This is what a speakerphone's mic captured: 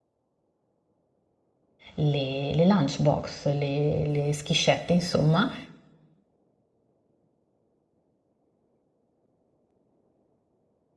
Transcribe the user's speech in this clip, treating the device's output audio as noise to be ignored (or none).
le- le lunchbox, le, le schiscette, insomma,